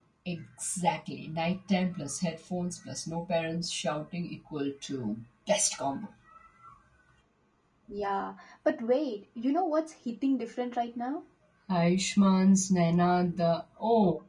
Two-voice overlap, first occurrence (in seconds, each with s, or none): none